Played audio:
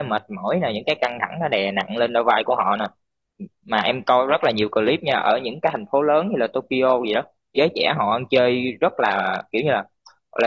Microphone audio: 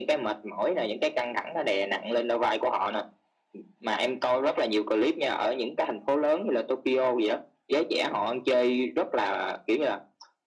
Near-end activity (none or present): none